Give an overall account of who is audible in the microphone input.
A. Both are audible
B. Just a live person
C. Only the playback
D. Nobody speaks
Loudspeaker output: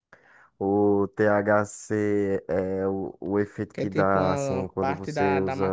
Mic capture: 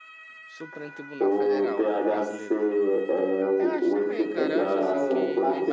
A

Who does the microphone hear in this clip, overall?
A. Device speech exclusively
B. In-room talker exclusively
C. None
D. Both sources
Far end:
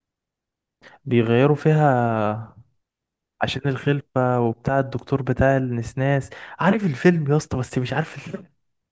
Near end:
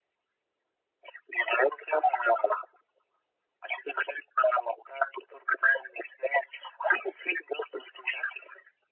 A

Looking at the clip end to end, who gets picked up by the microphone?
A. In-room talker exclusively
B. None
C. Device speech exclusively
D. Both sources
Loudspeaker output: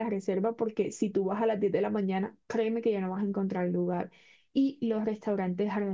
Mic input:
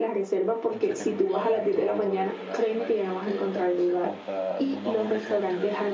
D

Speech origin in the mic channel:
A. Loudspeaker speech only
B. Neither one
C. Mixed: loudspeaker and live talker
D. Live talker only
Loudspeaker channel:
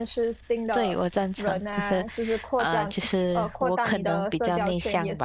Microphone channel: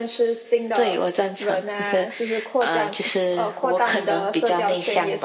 A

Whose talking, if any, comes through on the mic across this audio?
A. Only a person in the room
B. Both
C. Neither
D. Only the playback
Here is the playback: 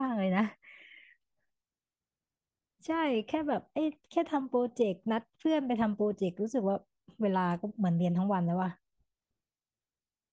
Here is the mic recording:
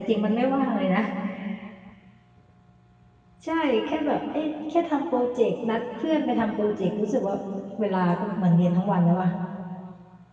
D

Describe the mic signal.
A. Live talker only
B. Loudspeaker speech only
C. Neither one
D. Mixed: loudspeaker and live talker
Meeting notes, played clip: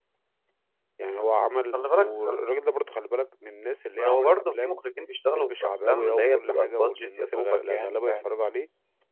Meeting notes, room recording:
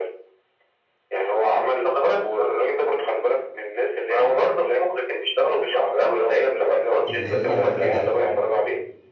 D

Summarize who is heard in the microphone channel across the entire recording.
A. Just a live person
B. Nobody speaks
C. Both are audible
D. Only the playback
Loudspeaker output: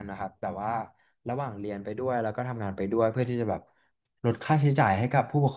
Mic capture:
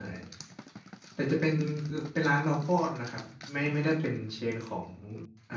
A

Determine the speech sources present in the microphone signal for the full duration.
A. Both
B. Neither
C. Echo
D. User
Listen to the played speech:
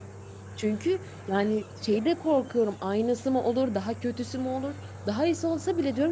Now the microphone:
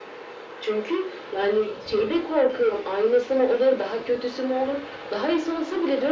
C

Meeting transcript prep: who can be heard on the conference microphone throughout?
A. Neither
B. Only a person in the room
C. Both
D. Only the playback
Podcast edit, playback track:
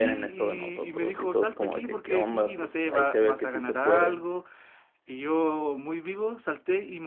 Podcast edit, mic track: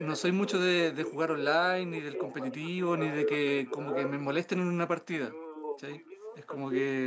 C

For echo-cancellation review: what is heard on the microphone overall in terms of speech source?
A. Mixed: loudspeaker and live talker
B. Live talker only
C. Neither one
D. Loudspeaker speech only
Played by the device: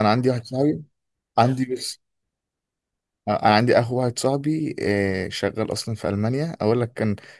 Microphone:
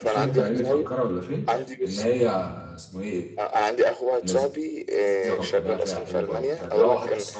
A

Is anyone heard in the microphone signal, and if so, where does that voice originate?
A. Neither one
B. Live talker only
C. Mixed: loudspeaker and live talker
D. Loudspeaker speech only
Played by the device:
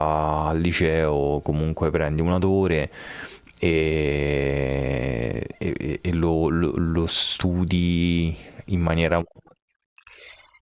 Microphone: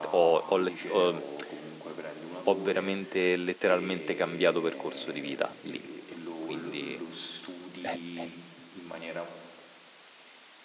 C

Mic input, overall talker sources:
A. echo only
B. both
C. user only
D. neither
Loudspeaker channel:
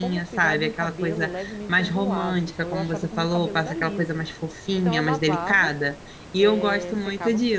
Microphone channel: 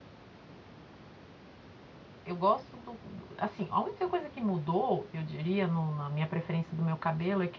C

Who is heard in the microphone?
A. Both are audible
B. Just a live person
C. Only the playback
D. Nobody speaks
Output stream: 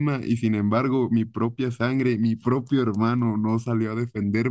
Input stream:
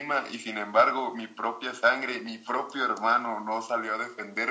C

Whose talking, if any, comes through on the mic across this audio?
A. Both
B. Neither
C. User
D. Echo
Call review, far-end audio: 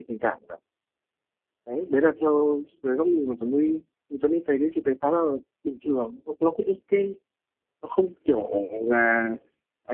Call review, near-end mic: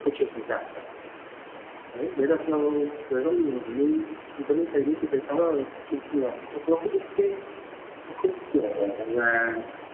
D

